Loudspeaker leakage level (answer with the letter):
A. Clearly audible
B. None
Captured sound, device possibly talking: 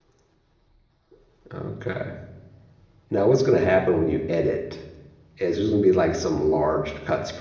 B